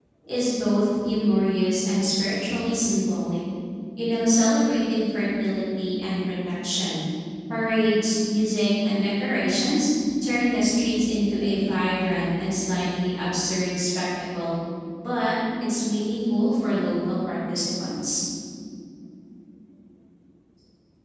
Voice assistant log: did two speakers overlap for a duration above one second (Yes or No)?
No